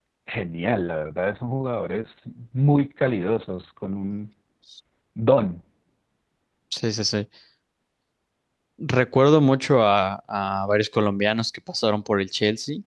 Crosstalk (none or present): none